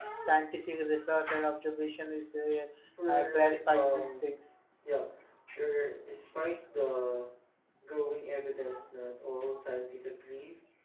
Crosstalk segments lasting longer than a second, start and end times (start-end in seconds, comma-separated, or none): 3.1-4.3